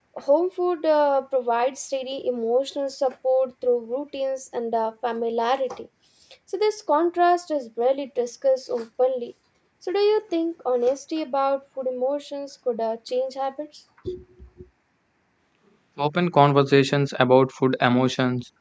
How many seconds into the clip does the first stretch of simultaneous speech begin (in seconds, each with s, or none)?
none